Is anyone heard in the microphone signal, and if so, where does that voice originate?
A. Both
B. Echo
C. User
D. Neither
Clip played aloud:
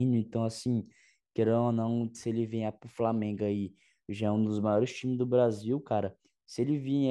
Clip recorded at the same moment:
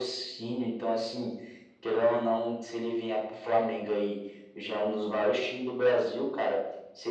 B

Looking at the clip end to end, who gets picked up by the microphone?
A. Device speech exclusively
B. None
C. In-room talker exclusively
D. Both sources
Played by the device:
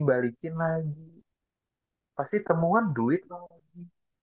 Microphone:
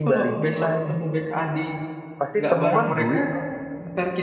D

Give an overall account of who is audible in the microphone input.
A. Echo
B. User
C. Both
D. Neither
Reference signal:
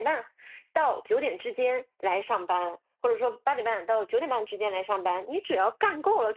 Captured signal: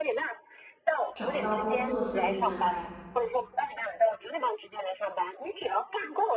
C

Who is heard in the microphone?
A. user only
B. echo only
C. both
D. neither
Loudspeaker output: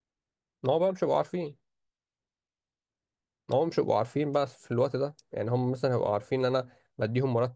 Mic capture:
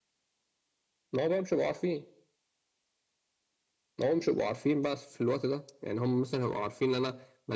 B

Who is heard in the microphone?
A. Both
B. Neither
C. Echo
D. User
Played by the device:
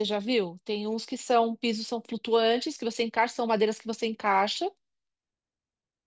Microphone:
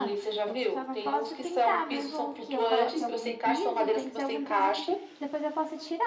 A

